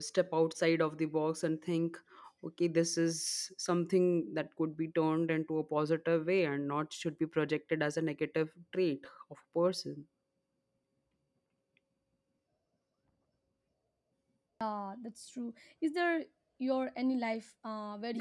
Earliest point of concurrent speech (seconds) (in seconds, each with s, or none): none